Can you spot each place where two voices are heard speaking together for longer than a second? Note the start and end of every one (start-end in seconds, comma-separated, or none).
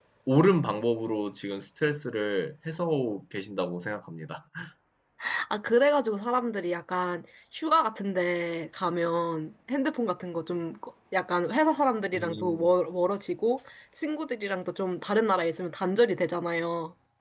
none